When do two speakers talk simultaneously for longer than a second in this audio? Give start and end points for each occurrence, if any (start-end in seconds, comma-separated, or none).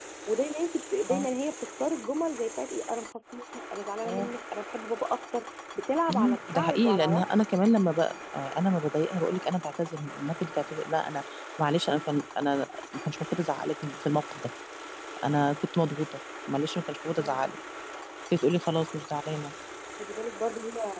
6.1-7.3